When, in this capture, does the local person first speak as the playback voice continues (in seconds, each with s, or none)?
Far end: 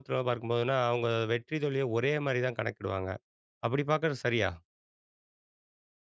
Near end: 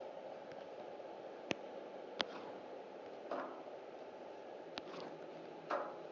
none